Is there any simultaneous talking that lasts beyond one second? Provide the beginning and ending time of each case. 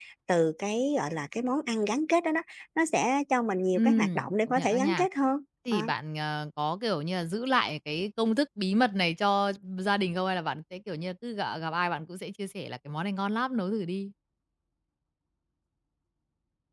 3.8-5.1

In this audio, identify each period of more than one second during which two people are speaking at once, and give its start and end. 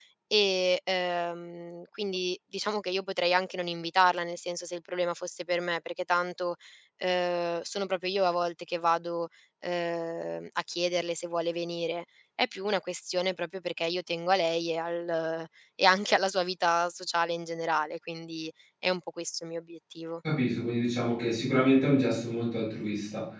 none

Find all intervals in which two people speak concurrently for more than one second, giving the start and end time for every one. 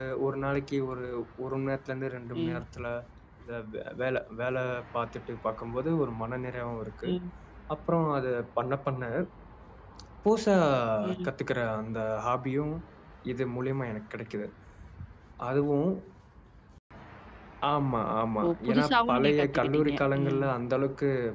18.4-20.4

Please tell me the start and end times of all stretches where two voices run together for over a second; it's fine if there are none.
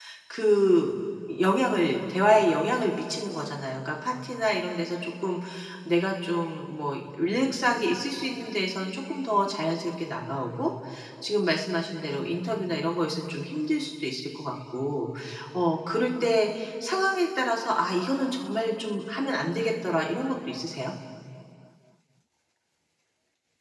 none

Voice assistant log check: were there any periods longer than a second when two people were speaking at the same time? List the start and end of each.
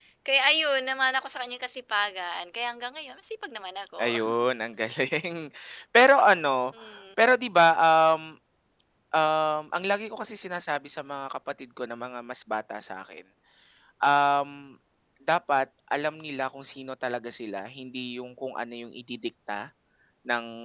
none

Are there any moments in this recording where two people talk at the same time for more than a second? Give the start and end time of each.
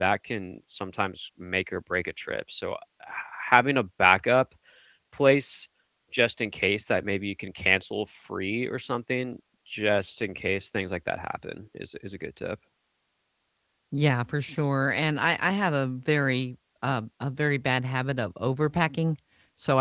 none

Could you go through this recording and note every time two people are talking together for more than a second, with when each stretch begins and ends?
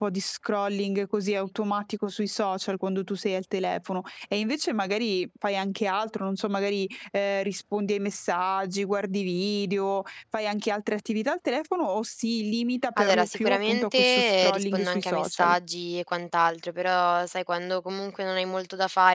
13.0-15.5

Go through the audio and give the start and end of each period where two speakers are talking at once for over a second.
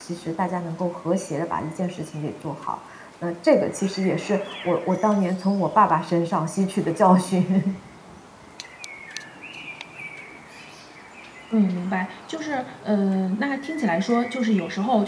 none

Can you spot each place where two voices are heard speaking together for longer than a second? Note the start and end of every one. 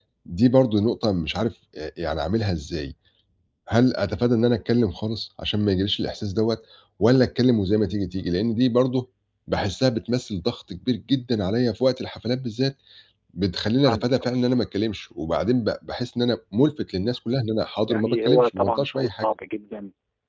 17.9-19.2

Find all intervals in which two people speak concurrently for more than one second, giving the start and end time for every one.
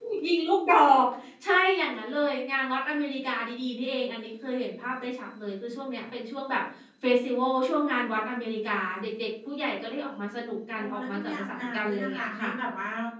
10.8-12.5

